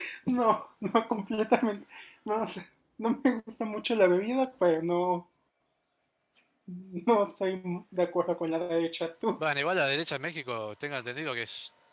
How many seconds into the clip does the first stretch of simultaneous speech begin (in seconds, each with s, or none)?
none